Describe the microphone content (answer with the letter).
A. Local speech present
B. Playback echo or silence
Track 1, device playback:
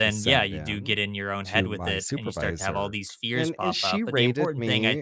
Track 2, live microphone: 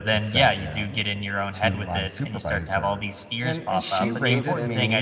A